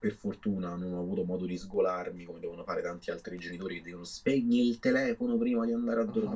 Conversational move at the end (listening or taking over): taking over